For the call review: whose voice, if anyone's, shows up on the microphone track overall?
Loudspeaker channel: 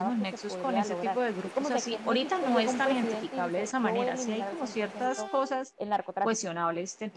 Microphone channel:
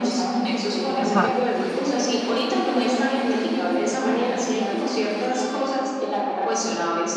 both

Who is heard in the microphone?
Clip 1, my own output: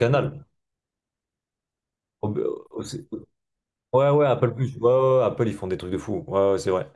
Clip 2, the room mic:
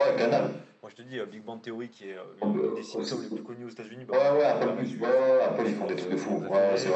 both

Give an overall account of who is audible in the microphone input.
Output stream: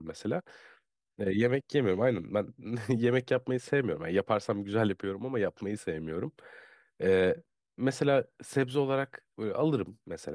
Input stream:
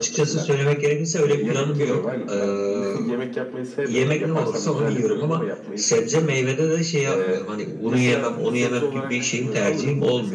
both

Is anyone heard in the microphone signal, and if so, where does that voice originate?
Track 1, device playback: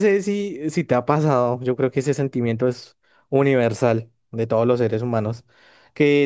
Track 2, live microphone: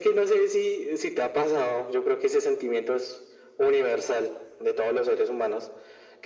echo only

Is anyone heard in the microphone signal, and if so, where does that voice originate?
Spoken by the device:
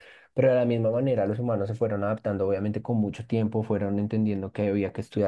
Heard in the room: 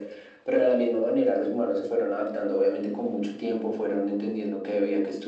echo only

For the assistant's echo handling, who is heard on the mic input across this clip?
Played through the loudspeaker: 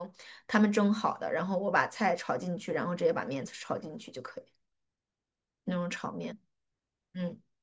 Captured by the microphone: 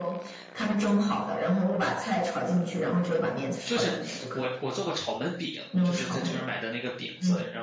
both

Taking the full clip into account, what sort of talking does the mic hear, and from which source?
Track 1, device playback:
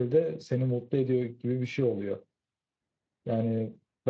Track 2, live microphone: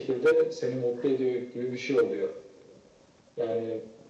echo only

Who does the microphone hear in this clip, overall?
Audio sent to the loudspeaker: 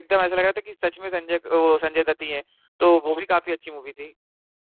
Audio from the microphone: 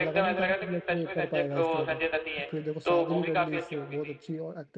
both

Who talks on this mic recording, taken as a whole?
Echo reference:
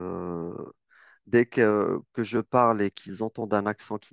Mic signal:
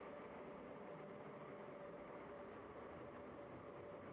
neither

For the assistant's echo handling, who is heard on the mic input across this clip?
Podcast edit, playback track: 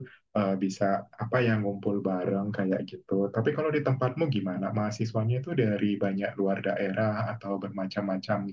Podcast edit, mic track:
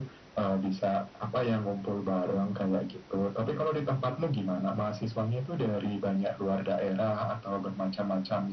echo only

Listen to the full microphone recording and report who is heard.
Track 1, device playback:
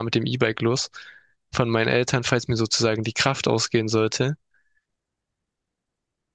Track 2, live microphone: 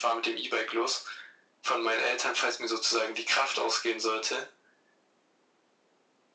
echo only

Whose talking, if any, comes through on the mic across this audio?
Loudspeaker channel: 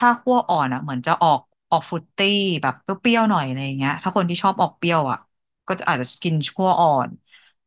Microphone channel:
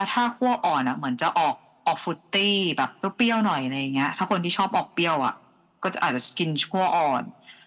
echo only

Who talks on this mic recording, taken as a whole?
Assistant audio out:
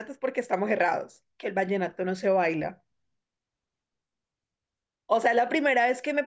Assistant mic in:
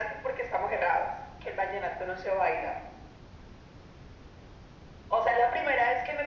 echo only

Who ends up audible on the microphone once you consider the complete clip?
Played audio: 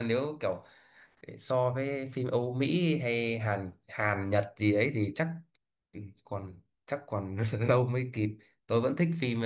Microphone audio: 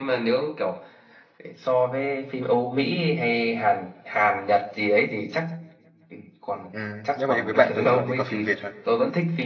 both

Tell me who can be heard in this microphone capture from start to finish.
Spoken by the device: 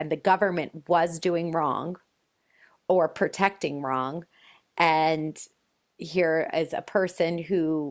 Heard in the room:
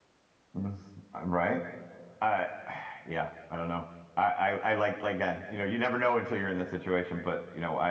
user only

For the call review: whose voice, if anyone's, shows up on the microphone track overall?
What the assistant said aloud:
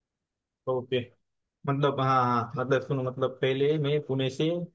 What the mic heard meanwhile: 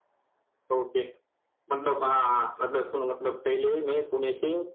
echo only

